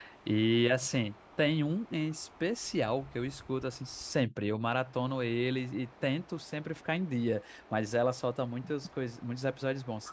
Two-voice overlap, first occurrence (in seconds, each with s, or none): none